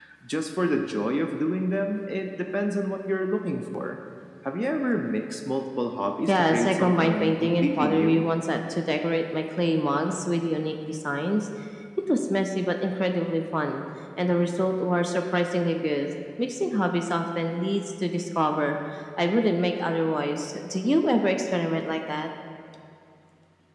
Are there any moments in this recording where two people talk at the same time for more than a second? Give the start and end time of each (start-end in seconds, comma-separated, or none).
6.3-8.2